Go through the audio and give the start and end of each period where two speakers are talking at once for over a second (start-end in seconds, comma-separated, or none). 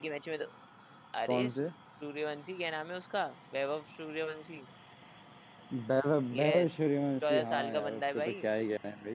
7.2-8.4